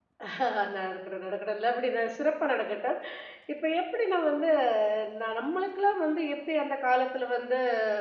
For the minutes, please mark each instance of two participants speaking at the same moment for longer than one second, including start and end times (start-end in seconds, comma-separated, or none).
none